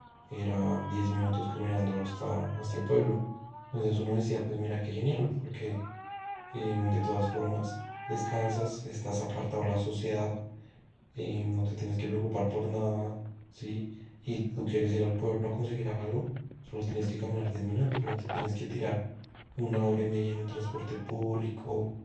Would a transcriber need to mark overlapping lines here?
No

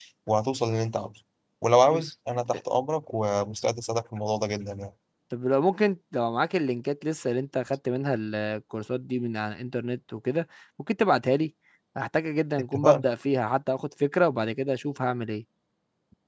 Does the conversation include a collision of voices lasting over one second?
No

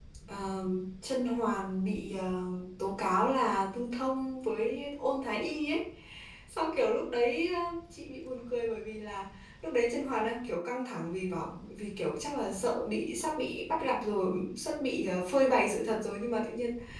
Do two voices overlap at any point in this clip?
No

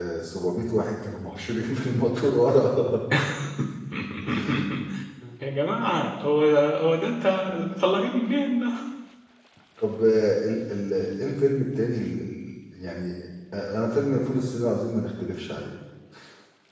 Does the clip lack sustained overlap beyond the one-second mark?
Yes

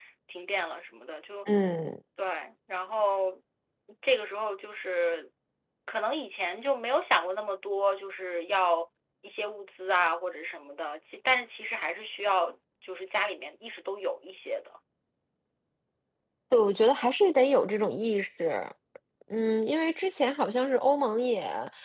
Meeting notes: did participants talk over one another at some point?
No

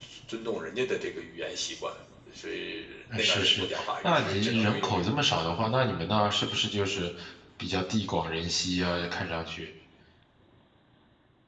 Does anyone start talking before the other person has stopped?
Yes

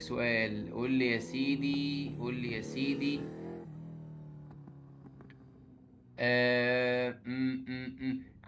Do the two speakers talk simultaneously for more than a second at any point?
No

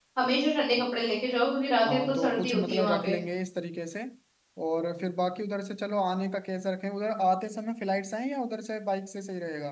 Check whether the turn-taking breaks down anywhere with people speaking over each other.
Yes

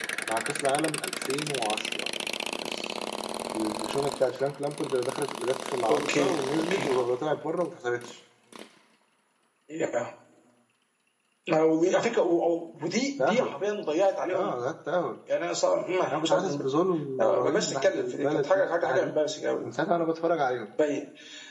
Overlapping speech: Yes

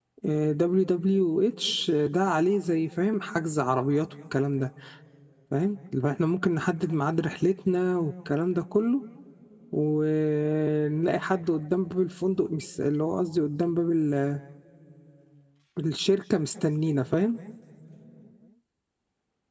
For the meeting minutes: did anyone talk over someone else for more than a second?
No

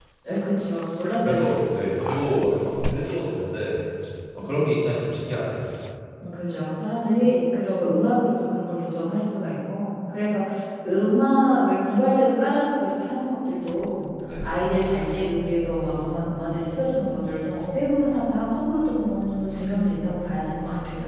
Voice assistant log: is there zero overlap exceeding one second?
Yes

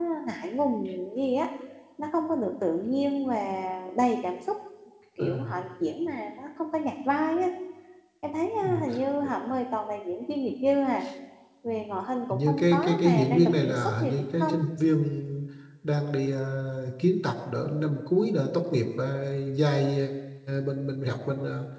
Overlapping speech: Yes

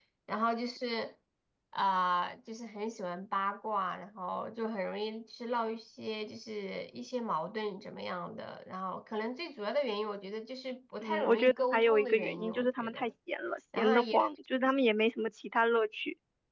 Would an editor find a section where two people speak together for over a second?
Yes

